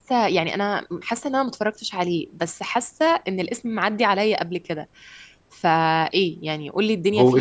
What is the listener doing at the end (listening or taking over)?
taking over